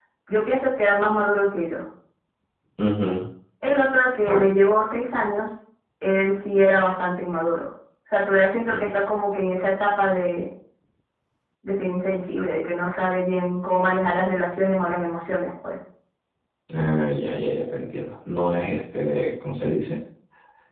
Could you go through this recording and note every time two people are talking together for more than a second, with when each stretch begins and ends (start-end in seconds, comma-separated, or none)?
none